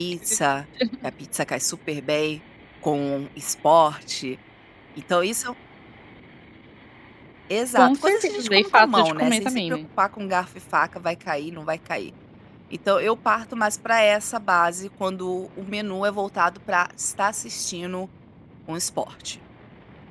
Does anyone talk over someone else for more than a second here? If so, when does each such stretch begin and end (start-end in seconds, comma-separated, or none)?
7.8-9.8